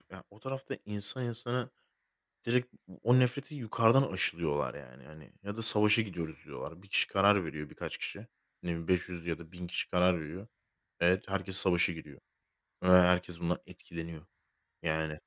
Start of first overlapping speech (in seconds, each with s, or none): none